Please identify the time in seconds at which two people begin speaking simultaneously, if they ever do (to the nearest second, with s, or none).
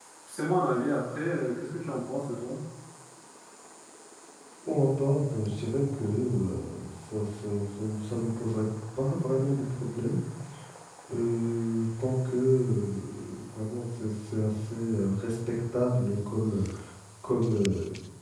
none